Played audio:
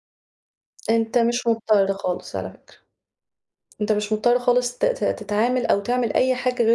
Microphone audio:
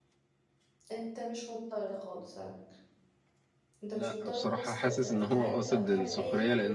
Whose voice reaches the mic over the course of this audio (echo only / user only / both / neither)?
both